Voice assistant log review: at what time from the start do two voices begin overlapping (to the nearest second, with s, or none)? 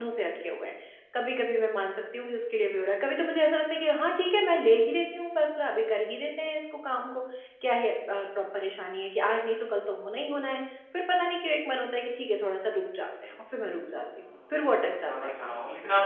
14 s